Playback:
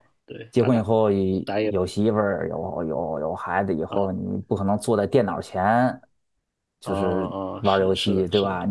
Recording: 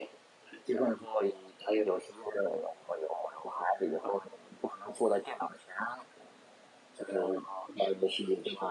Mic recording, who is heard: echo only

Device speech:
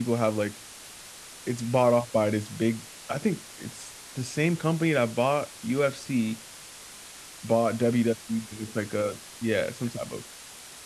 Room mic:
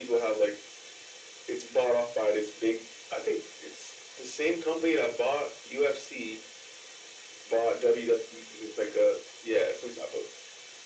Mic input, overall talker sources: echo only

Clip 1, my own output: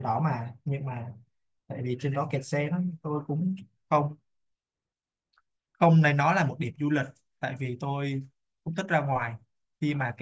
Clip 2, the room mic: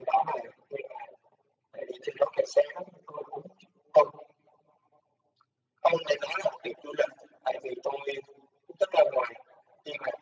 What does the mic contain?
echo only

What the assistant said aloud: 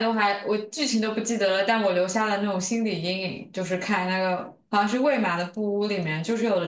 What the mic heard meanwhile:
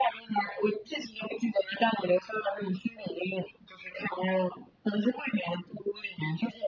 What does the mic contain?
echo only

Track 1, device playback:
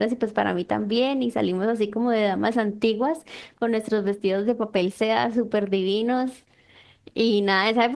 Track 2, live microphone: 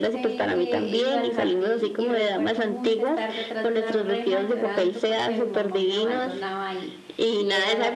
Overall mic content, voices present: both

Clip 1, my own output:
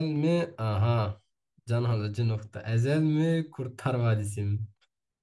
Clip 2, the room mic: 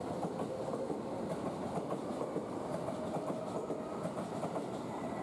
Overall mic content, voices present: neither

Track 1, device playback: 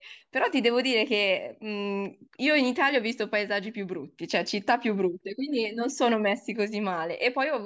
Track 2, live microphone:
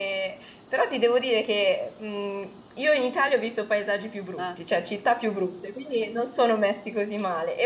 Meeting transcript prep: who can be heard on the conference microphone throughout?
both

